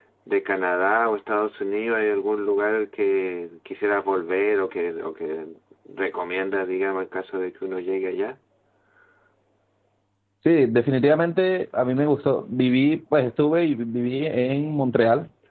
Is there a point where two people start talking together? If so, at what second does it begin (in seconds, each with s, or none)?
none